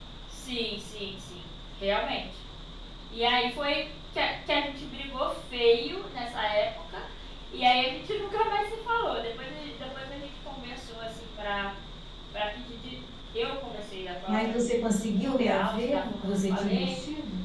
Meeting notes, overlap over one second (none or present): present